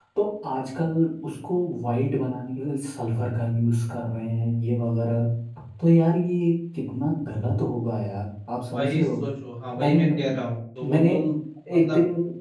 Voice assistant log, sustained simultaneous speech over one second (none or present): none